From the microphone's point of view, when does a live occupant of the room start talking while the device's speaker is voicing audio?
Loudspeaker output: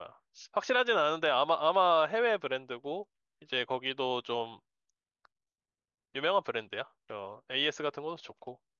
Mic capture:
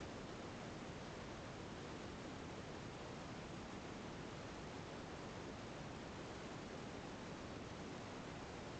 none

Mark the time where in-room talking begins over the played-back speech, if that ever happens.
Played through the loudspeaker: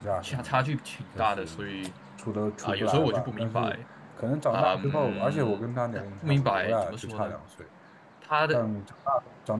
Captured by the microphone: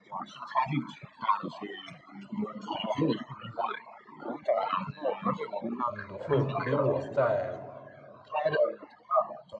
6 s

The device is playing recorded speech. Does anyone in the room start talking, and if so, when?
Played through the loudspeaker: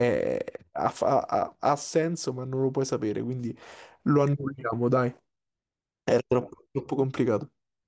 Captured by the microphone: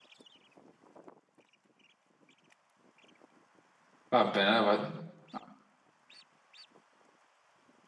4 s

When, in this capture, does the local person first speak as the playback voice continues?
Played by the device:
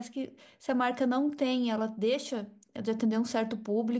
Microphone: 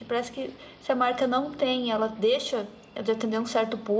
none

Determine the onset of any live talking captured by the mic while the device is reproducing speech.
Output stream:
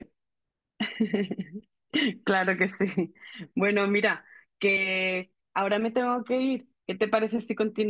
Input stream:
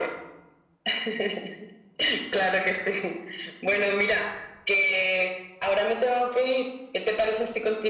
none

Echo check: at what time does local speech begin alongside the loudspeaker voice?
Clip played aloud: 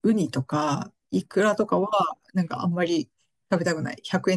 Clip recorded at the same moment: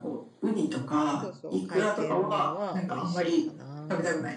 1 s

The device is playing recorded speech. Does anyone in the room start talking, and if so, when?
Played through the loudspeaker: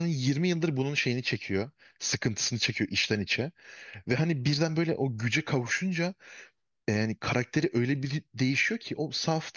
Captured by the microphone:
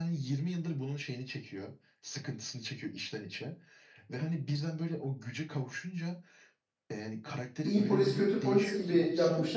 8 s

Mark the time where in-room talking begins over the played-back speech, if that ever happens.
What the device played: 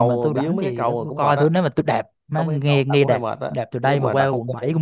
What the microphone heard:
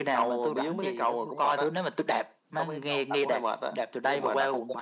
none

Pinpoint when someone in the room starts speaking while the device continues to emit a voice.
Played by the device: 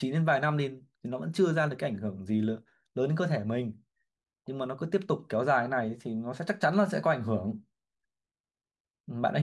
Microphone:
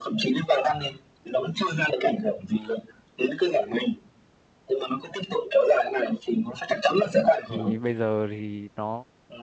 7 s

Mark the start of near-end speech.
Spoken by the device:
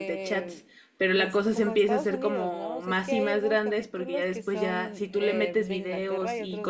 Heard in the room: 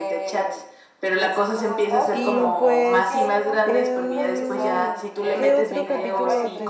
2 s

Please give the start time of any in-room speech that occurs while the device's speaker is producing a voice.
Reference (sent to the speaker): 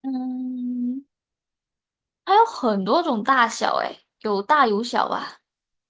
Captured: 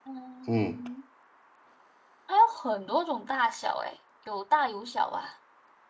0 s

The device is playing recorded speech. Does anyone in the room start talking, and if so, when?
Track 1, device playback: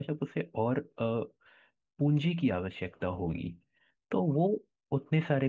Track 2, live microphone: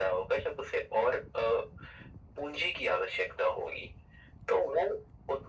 none

